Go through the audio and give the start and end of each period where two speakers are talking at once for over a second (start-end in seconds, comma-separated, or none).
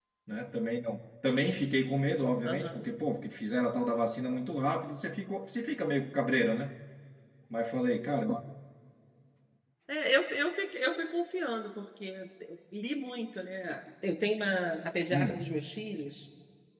none